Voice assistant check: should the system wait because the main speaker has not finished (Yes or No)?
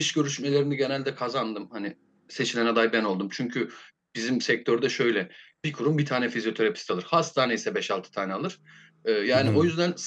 Yes